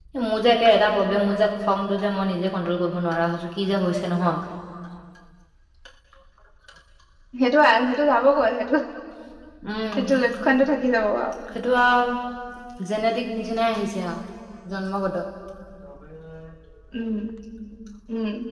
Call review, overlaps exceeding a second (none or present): none